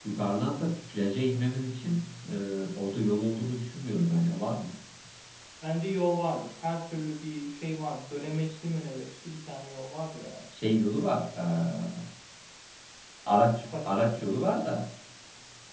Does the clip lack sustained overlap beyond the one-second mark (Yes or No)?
Yes